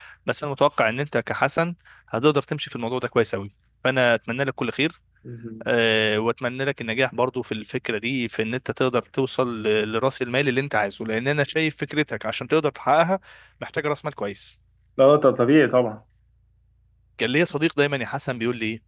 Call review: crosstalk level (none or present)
none